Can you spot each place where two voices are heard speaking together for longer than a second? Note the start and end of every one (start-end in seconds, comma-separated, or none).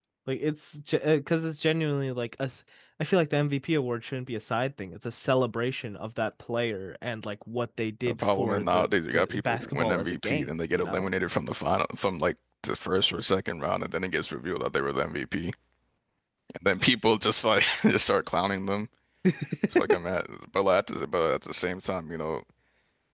8.1-11.1